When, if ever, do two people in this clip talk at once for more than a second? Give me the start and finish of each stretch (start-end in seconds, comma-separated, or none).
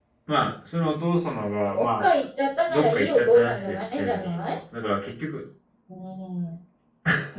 2.7-4.6